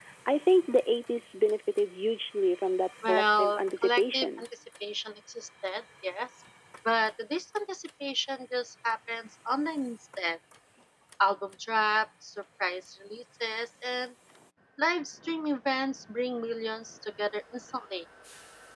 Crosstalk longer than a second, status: present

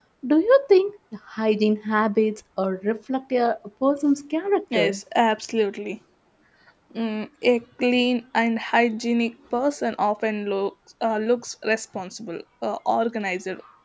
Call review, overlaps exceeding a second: none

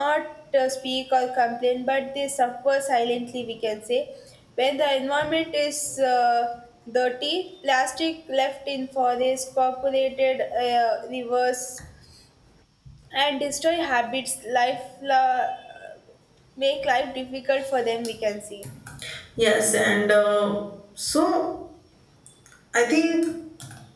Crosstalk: none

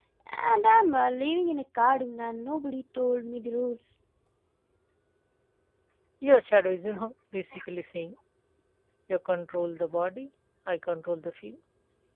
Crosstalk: none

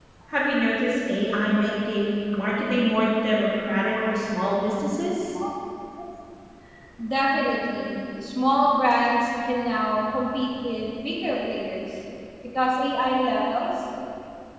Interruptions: none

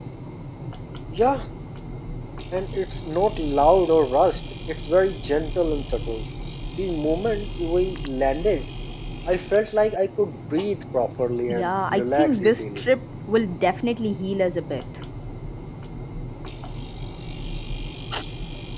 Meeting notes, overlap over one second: present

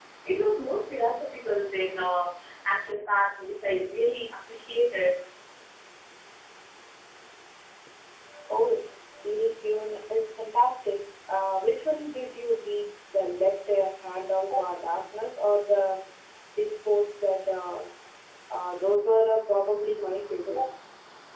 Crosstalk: none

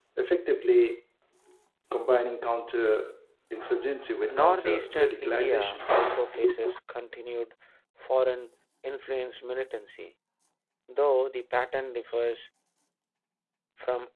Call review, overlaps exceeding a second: present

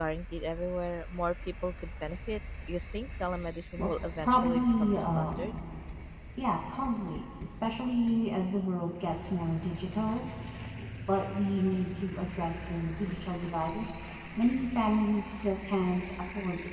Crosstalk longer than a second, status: present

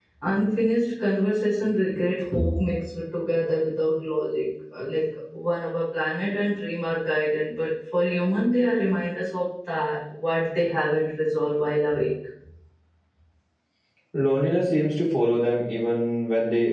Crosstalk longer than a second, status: none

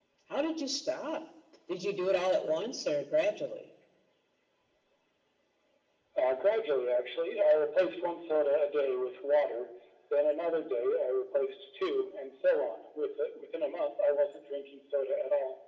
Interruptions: none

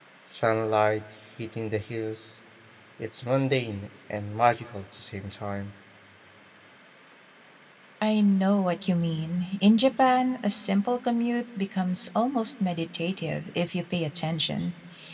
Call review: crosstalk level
none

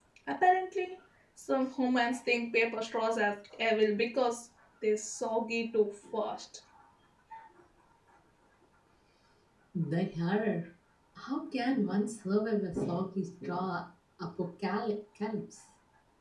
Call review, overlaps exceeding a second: none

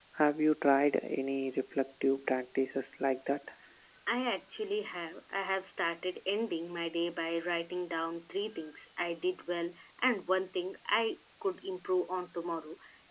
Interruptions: none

